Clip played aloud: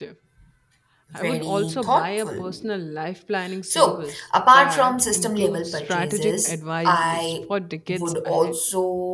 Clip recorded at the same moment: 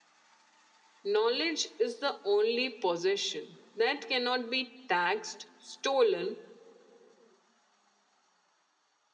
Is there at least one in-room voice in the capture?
Yes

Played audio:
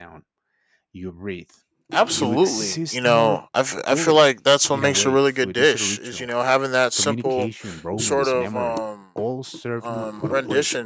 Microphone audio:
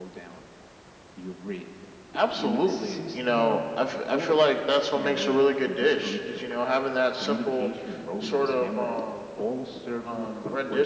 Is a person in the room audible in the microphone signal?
No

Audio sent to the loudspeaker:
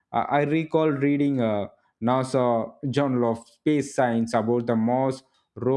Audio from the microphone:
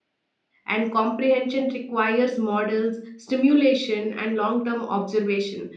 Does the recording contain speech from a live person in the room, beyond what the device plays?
Yes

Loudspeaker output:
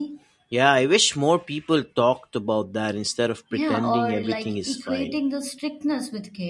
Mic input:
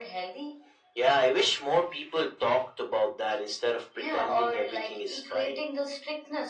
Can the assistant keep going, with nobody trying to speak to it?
Yes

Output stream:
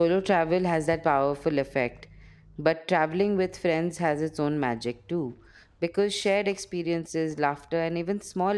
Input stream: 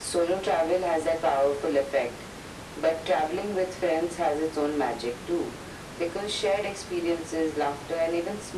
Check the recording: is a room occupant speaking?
No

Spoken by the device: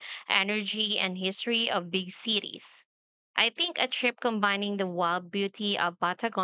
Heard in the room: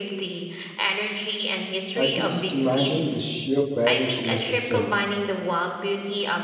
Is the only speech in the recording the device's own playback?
No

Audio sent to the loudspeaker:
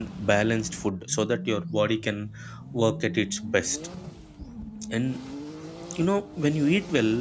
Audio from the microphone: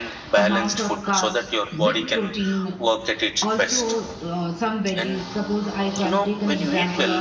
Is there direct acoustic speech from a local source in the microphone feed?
Yes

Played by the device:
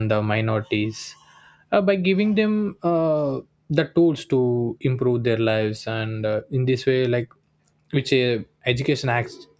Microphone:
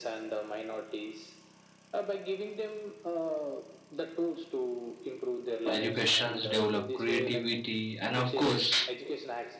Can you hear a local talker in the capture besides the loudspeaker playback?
Yes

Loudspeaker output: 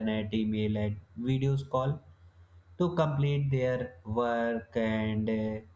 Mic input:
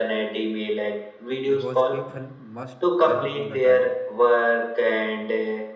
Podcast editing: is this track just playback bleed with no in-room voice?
No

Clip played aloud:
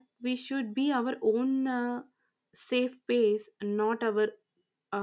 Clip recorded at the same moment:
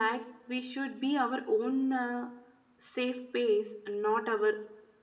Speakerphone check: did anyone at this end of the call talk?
No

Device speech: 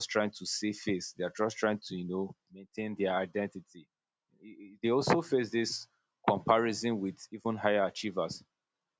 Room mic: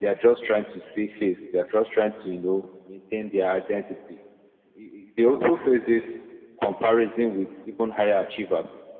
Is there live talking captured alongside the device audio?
No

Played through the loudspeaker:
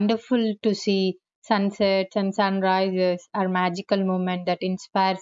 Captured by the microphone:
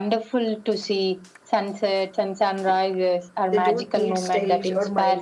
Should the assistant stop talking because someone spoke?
Yes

